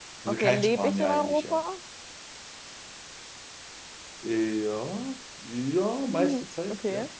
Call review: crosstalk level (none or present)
present